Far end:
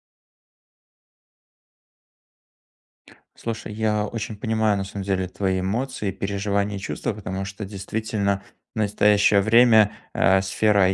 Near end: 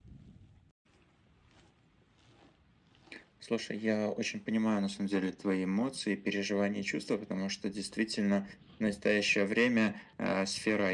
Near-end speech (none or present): none